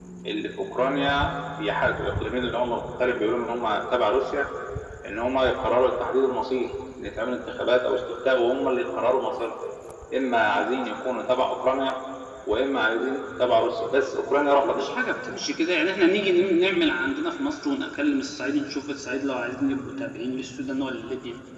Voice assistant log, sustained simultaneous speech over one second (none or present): none